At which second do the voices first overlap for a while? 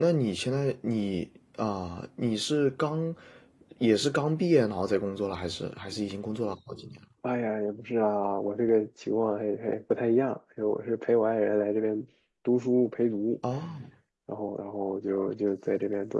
none

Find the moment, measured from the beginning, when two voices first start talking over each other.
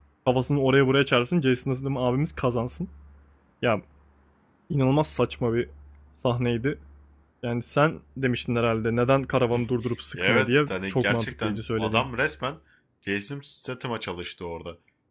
10.2 s

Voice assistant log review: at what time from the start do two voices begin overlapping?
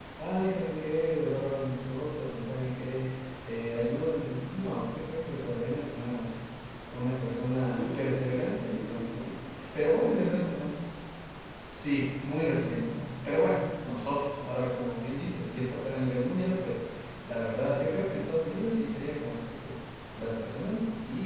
7.8 s

